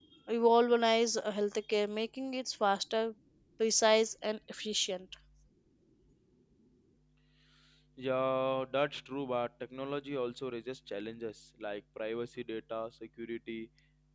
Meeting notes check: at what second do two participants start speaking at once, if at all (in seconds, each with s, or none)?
none